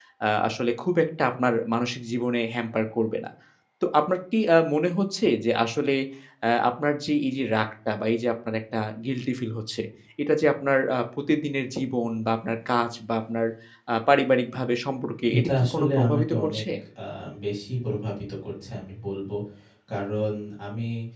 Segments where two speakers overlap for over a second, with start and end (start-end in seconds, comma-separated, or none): 15.4-16.6